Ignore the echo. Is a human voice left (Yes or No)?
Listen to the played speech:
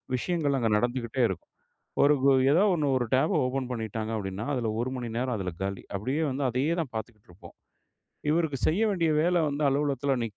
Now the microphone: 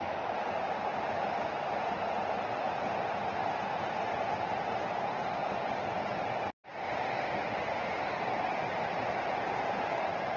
No